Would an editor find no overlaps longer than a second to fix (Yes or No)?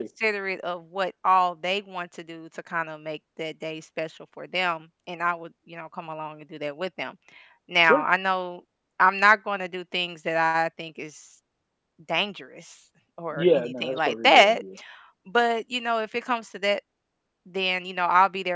No